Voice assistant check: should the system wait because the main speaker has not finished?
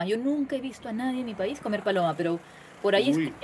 Yes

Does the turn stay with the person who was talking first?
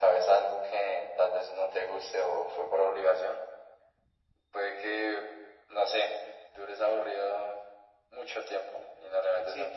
No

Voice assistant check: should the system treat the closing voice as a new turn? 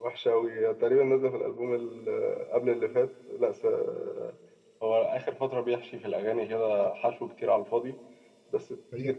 Yes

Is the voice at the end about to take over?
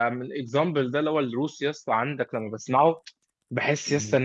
No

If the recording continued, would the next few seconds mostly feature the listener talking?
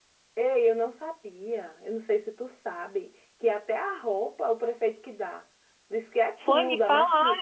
Yes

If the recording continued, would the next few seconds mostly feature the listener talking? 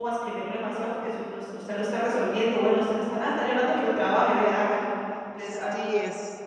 Yes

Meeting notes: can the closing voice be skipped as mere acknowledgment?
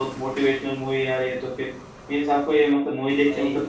Yes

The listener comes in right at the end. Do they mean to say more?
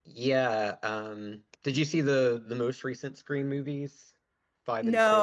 Yes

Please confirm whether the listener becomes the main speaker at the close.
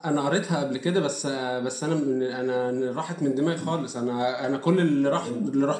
No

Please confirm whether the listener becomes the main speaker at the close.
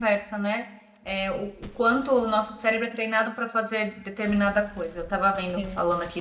No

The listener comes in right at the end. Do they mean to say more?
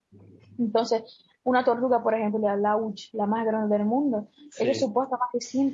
No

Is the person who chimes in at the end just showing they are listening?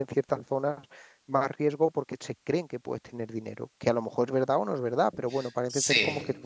Yes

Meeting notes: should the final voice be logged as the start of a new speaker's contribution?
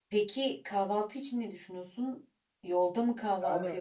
Yes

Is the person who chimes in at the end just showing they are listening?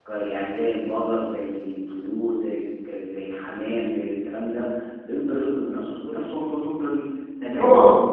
Yes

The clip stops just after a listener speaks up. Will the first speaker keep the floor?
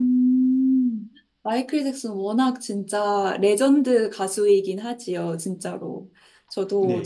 No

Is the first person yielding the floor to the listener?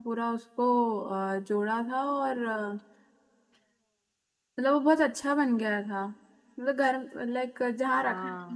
No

